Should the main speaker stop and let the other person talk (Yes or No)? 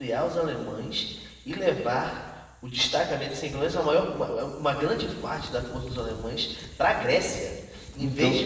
No